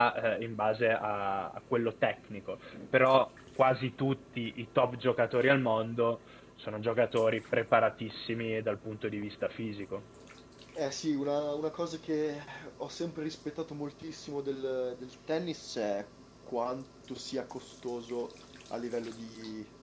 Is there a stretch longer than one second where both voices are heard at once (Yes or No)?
No